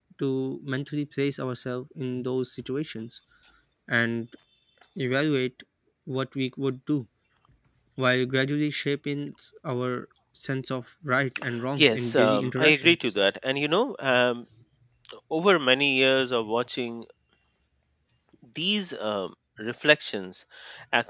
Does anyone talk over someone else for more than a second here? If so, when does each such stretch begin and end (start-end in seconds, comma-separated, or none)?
11.8-13.1